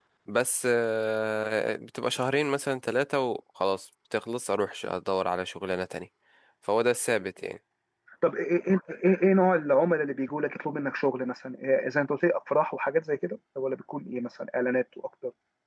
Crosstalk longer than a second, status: none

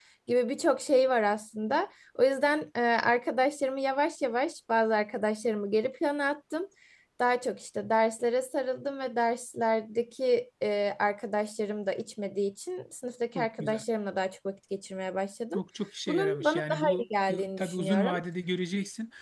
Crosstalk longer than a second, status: present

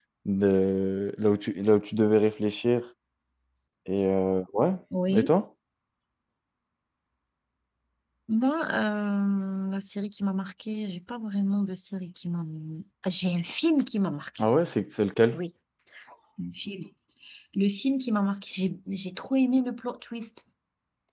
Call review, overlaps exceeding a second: none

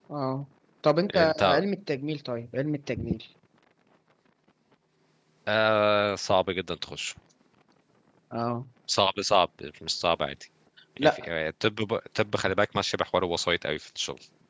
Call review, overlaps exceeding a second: none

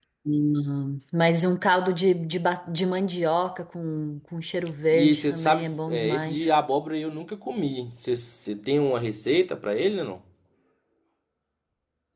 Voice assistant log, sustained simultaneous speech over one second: present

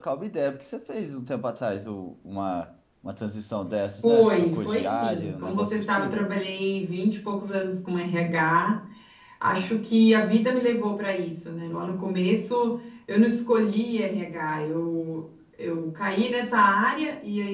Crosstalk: present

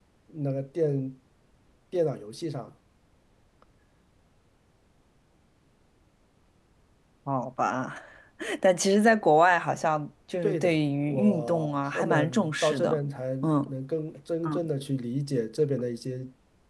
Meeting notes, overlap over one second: present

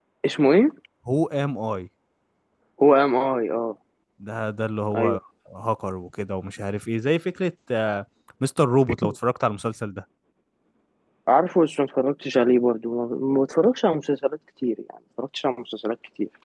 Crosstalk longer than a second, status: none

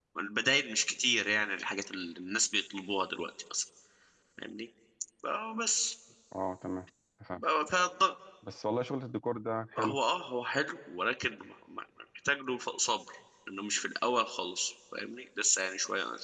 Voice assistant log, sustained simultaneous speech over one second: none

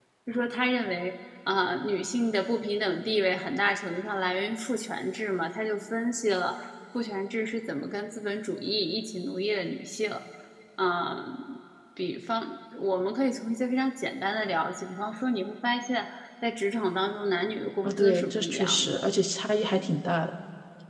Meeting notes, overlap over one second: present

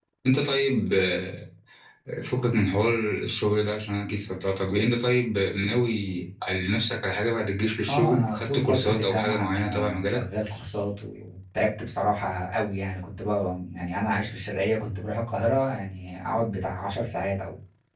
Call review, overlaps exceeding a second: present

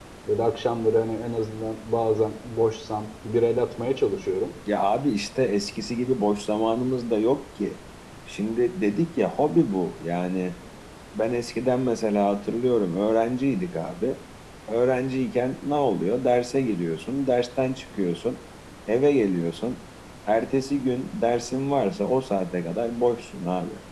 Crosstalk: none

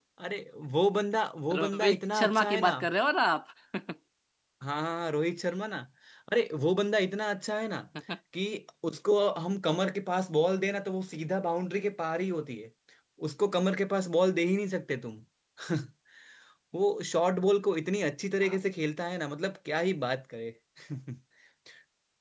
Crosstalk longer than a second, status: present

